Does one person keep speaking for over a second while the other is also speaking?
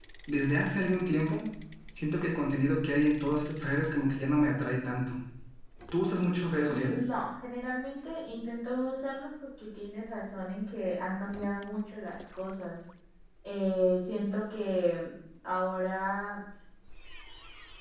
No

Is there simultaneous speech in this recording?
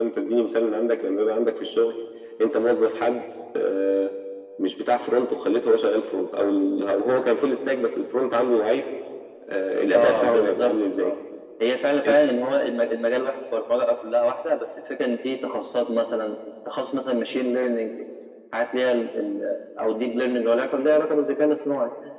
Yes, from 9.9 s

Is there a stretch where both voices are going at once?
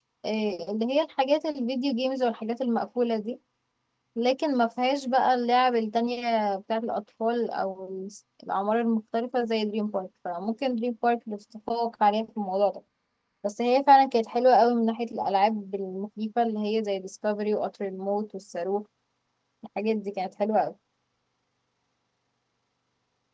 No

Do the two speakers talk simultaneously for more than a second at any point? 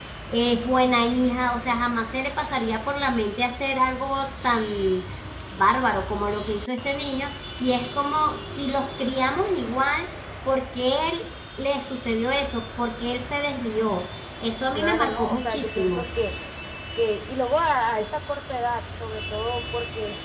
Yes, from 14.8 s

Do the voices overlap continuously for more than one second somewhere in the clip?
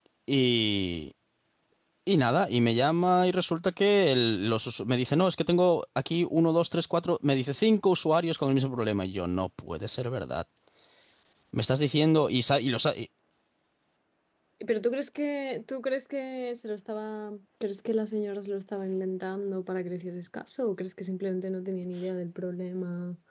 No

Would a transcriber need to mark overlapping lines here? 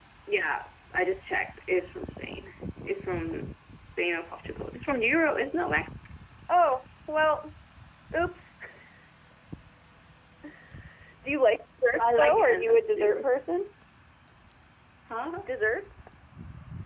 Yes, from 12.0 s

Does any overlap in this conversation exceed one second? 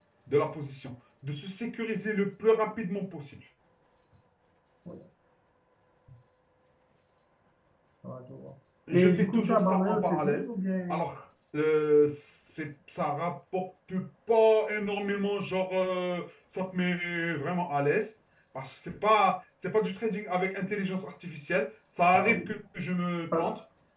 Yes, from 8.9 s

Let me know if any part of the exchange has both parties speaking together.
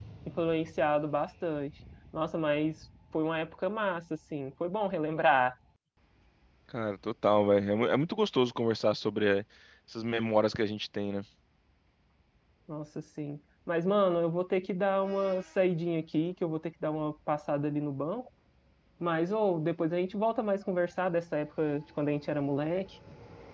No

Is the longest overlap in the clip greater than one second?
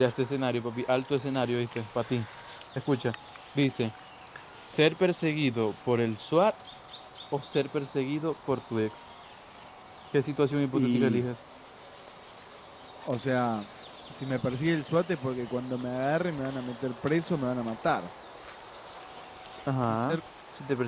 No

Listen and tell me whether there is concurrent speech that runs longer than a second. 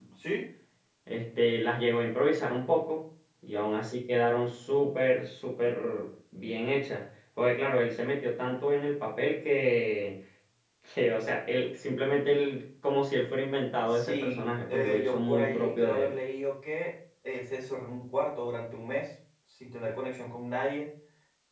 Yes, from 13.9 s

